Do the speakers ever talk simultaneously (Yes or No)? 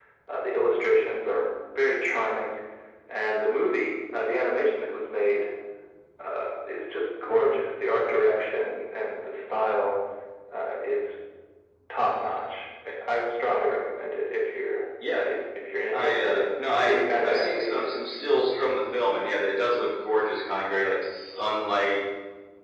Yes